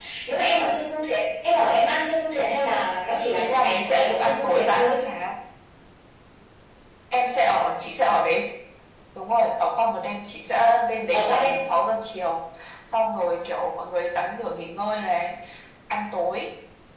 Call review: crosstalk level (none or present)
present